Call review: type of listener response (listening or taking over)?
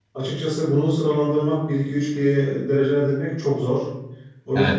taking over